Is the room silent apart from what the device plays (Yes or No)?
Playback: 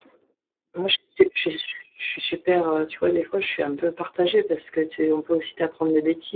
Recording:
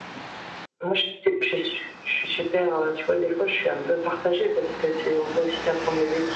Yes